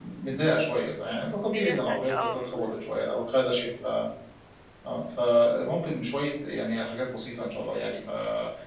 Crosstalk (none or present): present